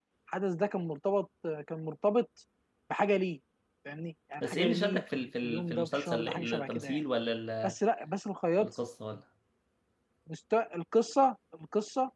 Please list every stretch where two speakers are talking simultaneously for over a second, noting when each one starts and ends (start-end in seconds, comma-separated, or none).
4.4-7.0